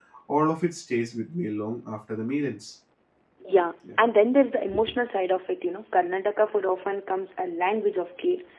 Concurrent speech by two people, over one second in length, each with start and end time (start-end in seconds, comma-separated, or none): none